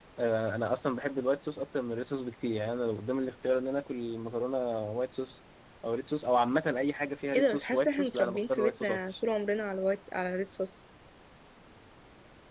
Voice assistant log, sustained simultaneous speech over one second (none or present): present